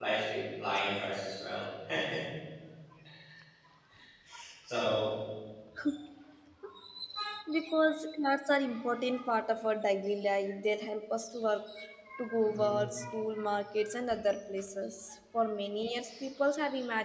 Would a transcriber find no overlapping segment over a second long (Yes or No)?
Yes